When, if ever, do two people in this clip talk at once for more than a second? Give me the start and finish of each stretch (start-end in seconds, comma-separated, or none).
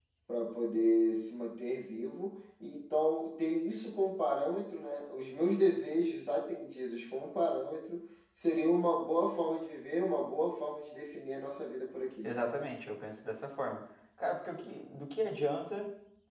none